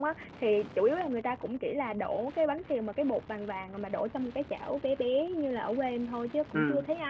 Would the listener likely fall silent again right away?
Yes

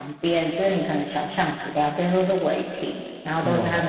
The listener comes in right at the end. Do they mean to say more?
No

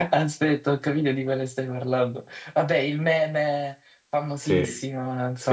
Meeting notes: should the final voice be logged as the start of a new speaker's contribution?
Yes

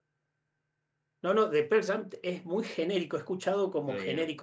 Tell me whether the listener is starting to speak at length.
No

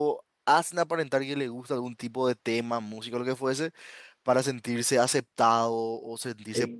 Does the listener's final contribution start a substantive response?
Yes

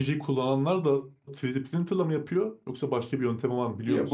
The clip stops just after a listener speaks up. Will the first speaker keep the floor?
No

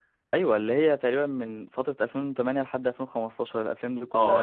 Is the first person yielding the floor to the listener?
Yes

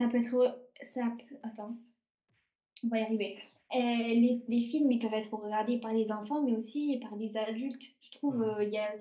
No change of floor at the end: Yes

